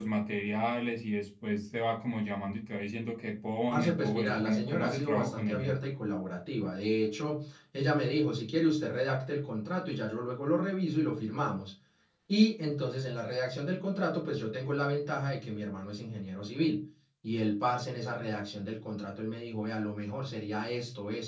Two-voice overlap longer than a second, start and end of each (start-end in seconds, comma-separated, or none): 3.7-5.8